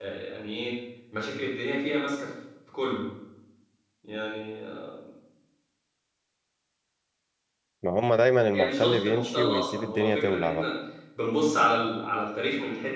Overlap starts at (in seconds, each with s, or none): 8.5 s